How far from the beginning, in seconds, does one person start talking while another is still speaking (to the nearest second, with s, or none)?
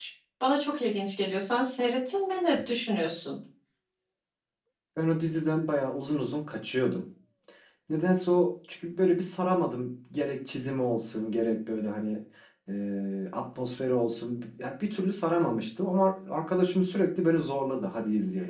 none